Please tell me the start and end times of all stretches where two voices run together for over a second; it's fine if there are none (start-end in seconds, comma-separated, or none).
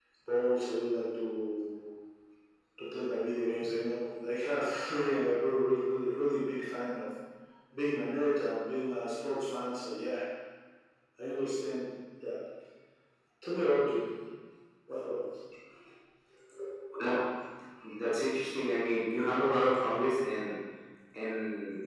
none